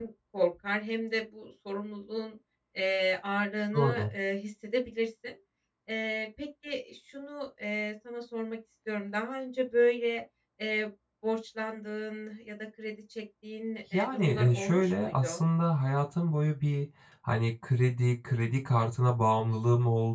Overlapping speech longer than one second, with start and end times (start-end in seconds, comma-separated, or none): 13.9-15.4